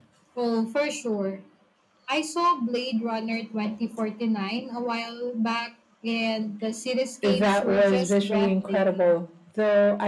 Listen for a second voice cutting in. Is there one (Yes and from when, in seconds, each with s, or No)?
Yes, from 7.2 s